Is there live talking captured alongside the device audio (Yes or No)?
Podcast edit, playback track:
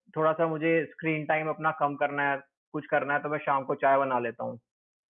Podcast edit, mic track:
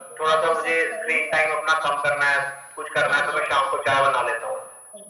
Yes